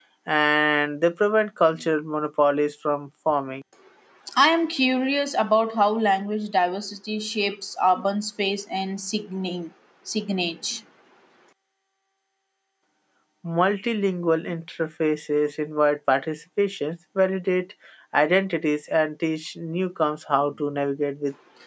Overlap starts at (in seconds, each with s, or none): none